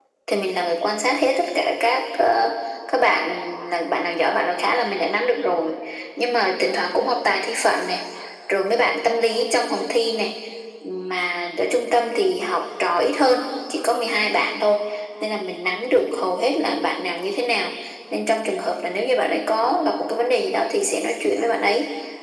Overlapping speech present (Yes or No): No